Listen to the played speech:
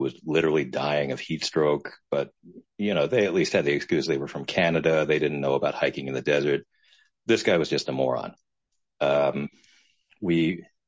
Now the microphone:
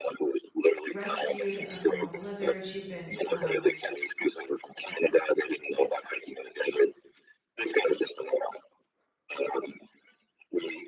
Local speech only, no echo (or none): rescued uh, from a blizzard. She'd been um,